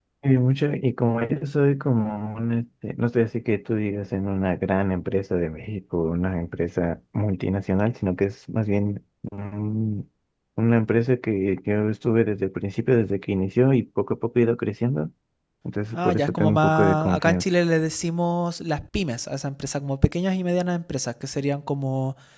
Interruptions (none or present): present